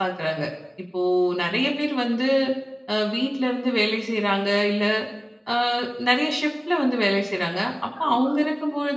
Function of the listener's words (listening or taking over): listening